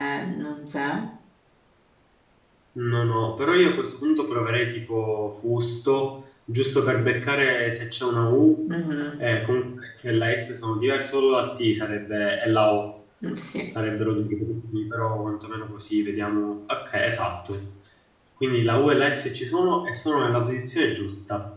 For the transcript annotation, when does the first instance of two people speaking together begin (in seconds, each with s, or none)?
none